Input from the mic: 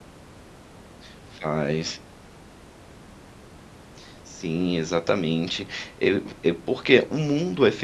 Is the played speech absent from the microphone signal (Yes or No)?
Yes